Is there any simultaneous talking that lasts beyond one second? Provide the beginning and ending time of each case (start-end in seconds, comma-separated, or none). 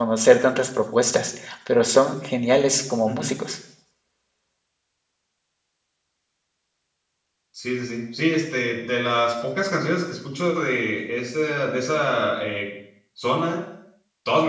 none